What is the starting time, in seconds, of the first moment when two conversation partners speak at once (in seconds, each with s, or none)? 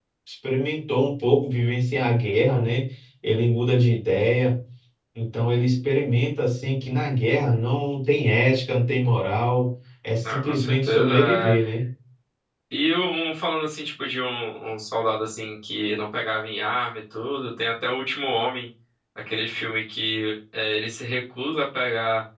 10.2 s